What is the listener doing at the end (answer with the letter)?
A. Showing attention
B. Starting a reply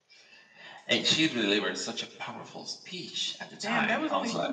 B